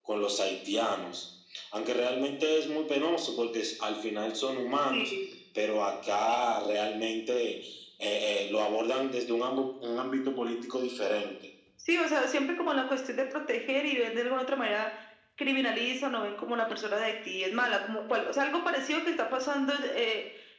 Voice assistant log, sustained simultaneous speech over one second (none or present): none